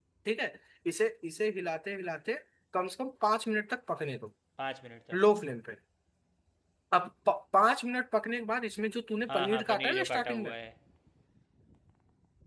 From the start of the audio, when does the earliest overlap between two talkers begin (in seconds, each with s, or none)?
9.3 s